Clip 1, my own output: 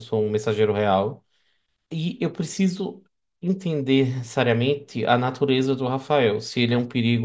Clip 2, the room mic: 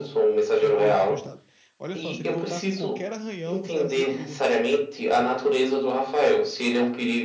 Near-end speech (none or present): present